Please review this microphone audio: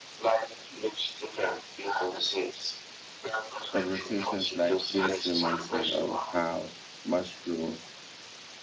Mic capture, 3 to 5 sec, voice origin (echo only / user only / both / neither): both